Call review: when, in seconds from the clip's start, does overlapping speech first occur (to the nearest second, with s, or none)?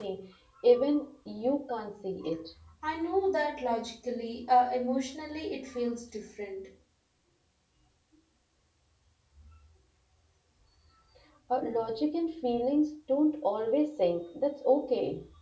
none